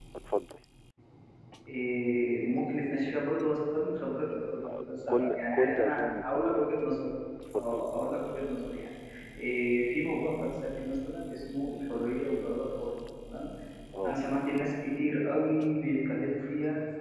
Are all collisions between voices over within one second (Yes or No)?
No